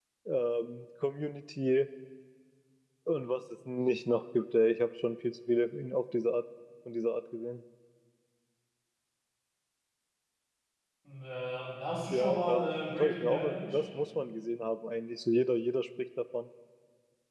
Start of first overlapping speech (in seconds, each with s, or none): 12.1 s